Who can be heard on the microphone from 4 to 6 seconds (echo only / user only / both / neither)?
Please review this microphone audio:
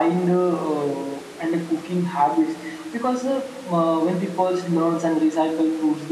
echo only